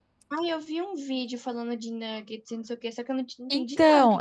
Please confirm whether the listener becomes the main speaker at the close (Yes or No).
Yes